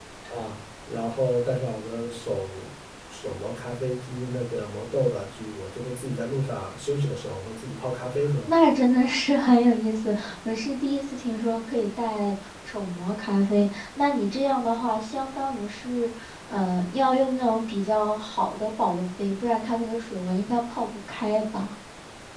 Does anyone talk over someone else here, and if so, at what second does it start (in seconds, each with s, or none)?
none